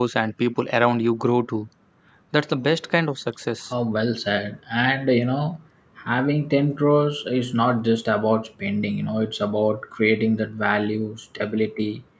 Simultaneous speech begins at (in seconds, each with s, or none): none